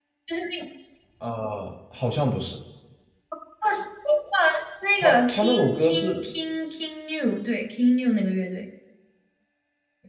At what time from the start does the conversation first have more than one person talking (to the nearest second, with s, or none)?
5 s